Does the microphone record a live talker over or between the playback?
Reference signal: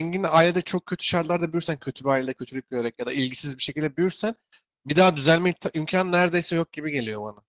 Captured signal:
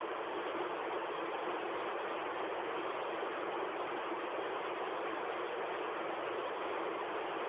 No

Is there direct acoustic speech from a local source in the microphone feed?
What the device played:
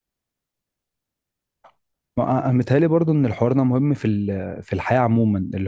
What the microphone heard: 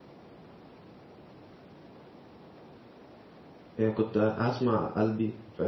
Yes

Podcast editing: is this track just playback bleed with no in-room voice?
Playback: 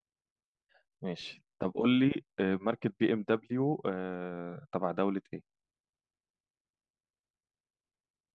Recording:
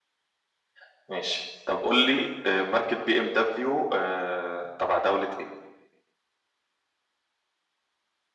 Yes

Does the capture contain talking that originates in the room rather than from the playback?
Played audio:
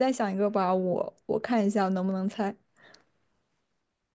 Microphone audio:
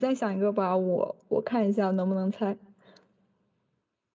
No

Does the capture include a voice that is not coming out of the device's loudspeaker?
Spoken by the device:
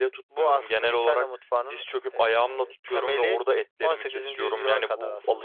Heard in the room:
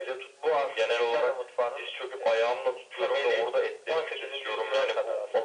No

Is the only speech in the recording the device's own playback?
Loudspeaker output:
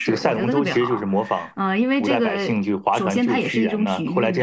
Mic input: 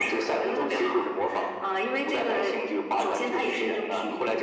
Yes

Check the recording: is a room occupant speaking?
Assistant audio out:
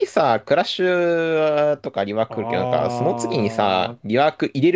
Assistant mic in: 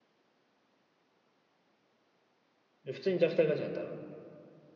Yes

